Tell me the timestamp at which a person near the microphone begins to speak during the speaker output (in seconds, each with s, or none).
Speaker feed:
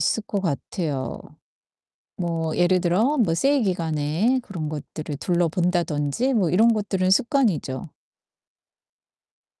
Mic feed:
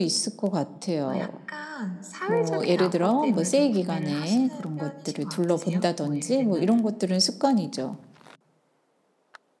1.1 s